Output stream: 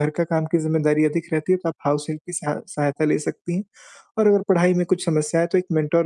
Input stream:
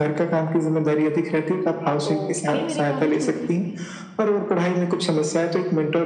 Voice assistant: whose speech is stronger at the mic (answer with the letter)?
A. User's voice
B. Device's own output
B